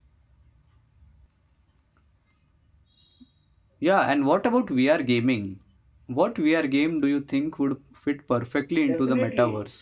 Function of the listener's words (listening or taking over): taking over